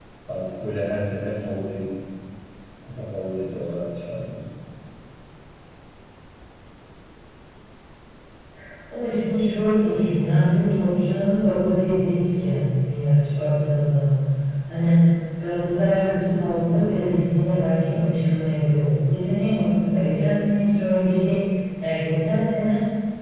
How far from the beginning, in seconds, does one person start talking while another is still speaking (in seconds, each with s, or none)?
none